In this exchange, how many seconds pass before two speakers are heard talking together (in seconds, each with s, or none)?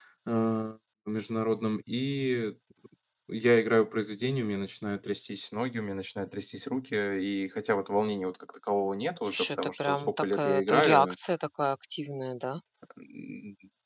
9.3 s